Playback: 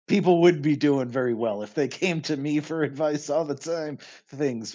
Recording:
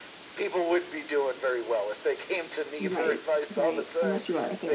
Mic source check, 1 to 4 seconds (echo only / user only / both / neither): both